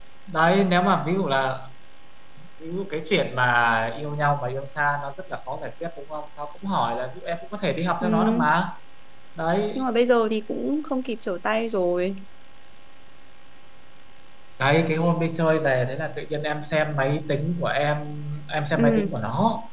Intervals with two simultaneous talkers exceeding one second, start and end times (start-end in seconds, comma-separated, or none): none